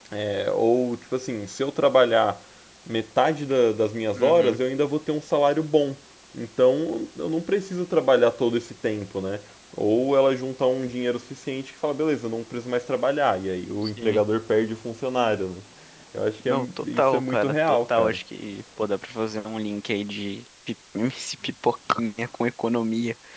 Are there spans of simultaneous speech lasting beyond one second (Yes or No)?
Yes